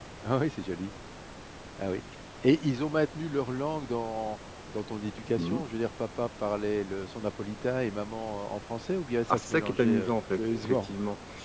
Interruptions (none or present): present